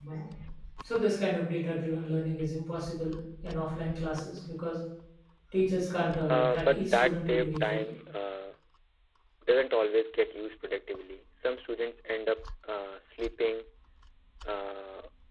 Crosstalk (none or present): present